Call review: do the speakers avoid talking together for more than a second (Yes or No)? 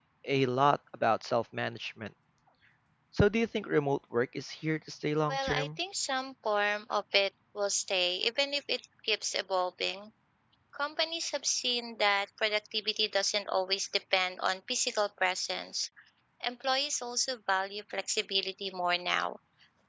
Yes